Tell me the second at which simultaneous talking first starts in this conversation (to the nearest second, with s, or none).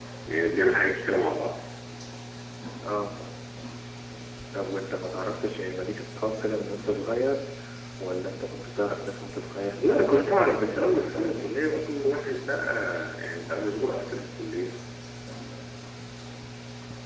10 s